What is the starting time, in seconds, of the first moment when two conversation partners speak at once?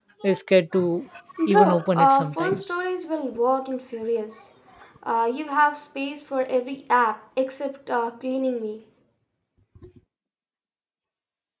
2 s

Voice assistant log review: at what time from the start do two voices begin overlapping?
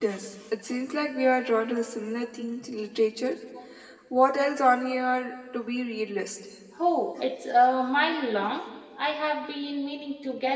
none

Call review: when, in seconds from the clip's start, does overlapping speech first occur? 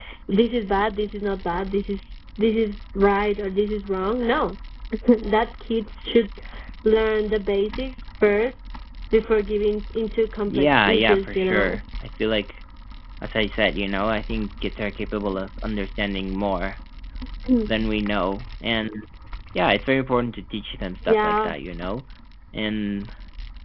10 s

